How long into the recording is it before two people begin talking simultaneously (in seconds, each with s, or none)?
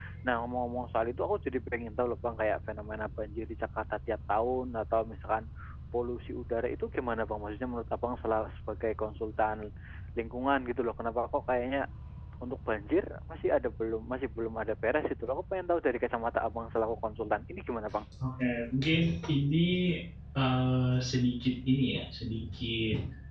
none